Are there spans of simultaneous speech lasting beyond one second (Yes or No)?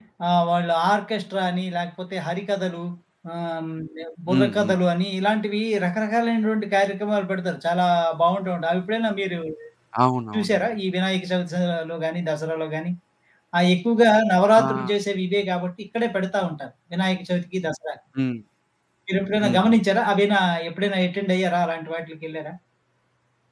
No